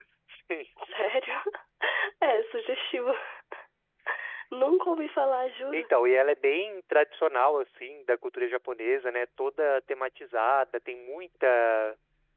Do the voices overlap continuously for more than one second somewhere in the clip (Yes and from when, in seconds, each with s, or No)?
No